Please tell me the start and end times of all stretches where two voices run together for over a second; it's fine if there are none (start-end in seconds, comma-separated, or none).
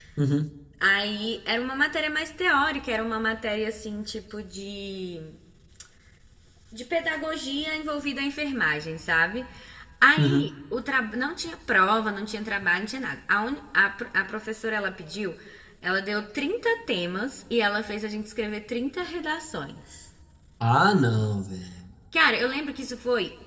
none